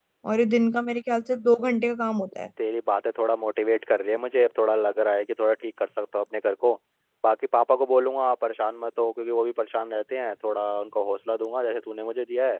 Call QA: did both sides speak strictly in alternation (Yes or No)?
Yes